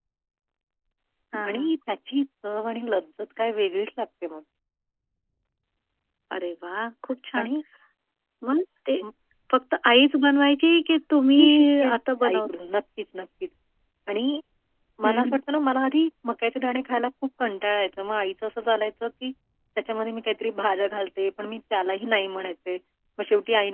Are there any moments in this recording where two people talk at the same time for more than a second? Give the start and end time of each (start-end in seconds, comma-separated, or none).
11.4-12.7